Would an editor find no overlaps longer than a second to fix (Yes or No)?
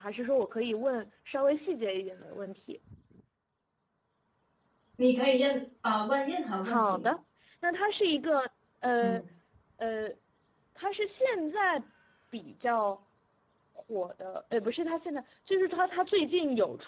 Yes